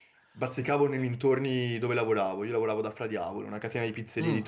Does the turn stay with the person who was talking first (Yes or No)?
Yes